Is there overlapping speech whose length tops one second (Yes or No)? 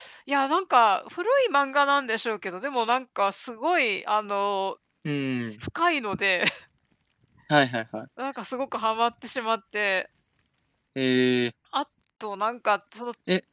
No